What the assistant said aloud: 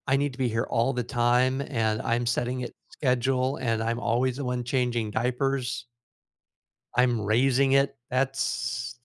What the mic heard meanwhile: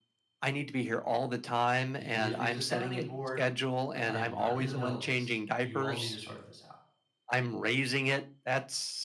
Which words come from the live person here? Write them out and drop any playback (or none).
You can use me as a sounding board, but I am not in the middle of this. You all need to sort this out.